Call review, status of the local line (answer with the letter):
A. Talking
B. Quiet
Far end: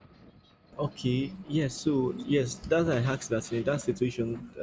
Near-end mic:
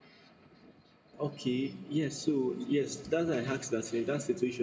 B